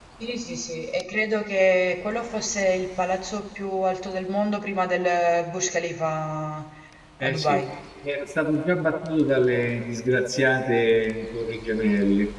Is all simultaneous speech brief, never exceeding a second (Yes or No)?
Yes